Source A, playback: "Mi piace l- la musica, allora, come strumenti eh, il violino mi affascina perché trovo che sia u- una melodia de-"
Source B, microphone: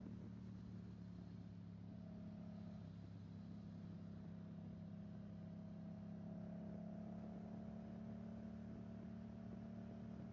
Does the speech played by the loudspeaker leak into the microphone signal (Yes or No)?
No